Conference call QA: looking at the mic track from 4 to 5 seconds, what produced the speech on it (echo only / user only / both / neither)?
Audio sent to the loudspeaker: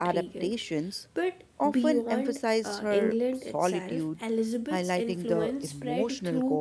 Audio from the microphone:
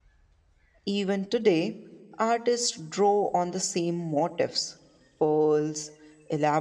user only